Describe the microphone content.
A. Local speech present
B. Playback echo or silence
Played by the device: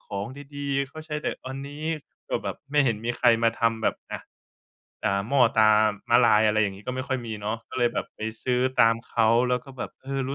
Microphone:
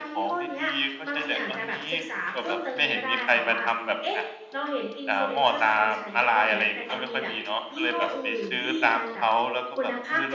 A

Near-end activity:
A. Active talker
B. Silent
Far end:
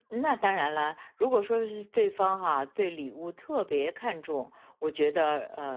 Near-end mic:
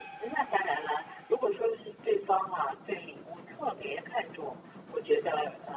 B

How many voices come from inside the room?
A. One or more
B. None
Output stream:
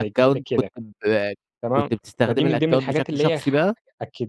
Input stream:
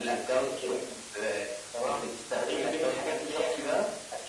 B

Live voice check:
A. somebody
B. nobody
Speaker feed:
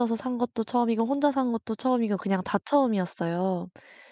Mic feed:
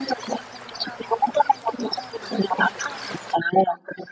B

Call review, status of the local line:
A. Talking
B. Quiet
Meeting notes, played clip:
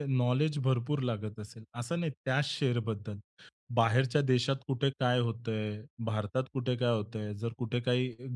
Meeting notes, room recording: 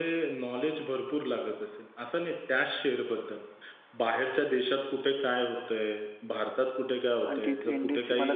A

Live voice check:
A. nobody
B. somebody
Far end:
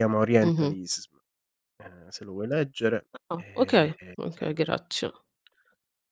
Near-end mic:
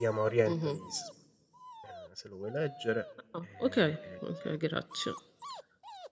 A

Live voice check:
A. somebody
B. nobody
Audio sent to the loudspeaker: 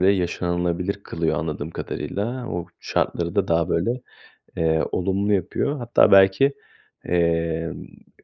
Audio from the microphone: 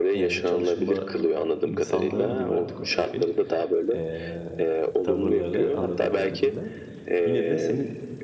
A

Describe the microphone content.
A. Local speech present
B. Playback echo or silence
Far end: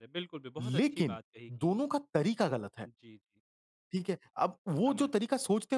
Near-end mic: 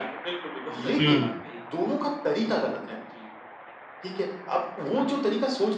A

